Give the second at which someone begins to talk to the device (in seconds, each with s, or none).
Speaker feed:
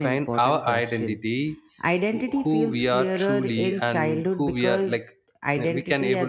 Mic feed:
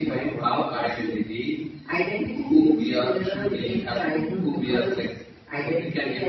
none